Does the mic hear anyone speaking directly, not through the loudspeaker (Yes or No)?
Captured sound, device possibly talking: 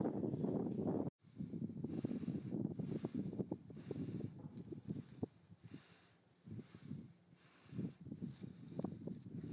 No